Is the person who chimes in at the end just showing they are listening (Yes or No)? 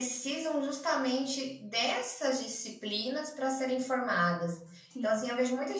Yes